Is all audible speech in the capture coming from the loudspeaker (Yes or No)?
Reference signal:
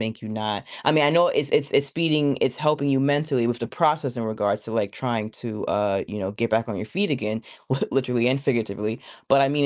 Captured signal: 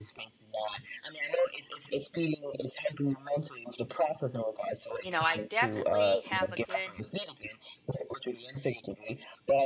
No